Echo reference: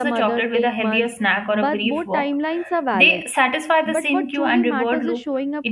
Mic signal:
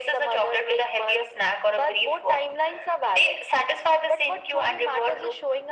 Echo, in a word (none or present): present